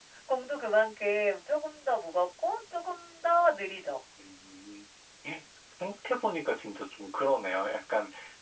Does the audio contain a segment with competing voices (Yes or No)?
No